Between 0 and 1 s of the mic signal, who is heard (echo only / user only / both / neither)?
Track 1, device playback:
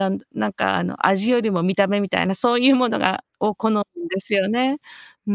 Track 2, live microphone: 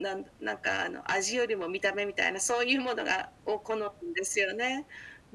echo only